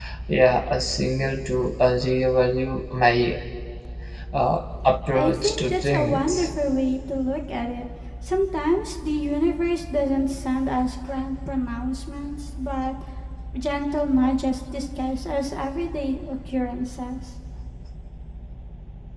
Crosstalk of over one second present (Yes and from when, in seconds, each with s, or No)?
Yes, from 5.1 s